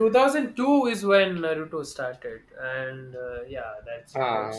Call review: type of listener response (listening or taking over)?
listening